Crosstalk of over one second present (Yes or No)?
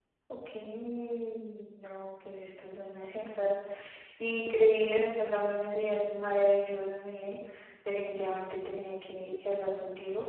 No